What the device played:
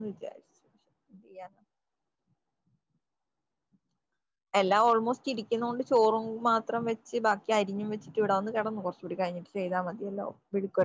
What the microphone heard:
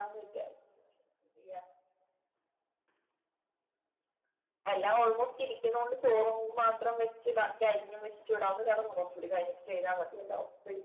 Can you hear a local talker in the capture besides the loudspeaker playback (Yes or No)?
No